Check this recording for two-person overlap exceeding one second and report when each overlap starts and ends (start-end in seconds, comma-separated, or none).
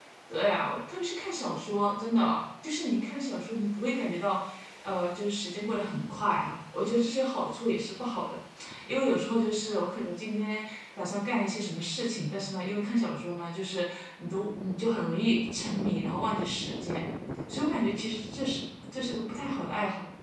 none